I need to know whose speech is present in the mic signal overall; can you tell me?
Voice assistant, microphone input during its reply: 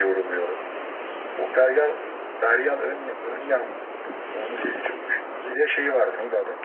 echo only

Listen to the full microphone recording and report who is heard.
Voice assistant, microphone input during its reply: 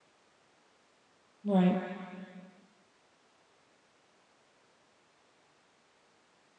user only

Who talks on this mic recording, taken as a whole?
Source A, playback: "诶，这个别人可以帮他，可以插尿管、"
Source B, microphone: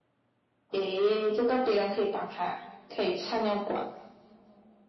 echo only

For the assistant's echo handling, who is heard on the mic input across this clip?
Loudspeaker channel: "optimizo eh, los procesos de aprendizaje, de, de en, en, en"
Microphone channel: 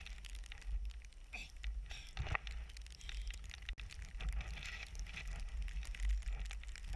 neither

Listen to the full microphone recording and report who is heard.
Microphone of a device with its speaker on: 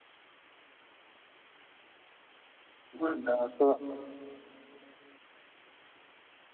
user only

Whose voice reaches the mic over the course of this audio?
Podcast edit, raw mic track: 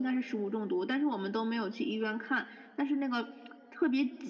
echo only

